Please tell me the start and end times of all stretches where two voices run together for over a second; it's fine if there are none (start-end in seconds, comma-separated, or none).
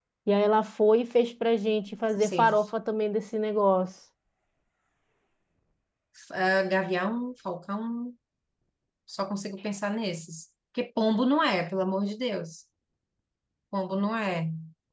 none